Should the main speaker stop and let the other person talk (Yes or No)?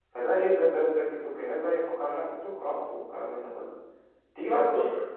Yes